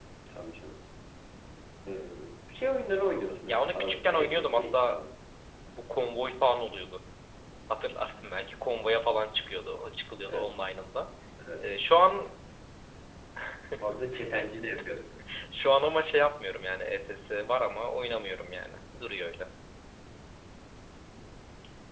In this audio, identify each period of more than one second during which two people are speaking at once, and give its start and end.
3.5-5.0

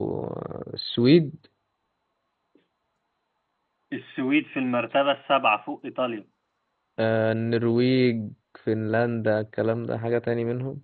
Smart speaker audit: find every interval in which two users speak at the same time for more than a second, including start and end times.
none

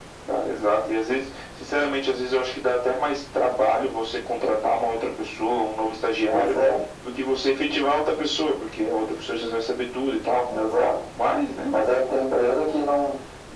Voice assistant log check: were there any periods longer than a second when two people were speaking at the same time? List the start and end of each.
none

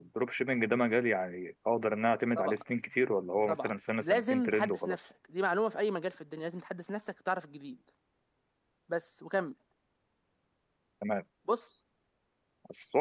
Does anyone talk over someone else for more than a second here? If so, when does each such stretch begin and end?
3.5-5.0

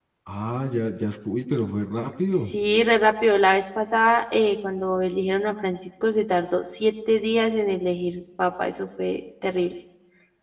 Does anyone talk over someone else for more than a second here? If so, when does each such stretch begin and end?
none

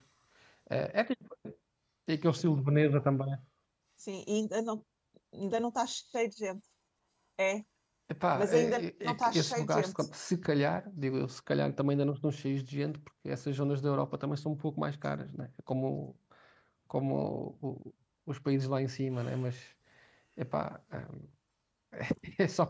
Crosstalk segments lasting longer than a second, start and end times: 8.3-10.0

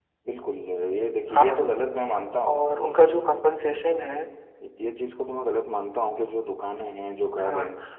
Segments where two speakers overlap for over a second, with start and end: none

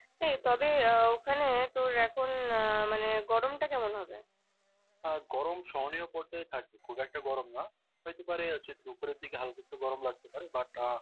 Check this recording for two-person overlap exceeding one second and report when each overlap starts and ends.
none

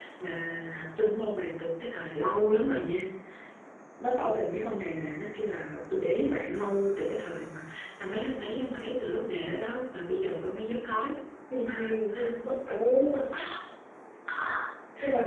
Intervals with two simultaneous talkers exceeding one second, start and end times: none

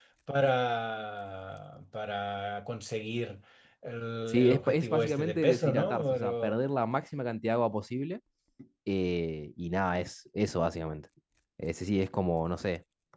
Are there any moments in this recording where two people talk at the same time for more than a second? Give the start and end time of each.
4.3-6.5

